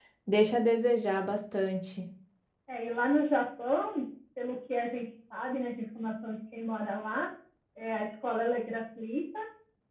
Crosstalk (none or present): none